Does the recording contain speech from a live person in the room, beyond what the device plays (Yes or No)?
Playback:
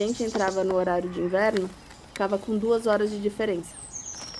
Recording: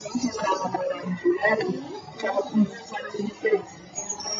Yes